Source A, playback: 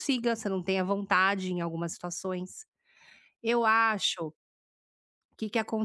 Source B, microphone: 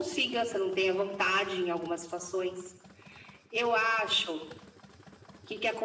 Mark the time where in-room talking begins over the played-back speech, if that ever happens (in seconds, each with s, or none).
none